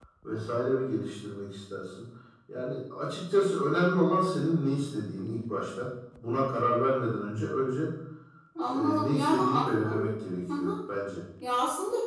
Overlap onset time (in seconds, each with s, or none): 8.7 s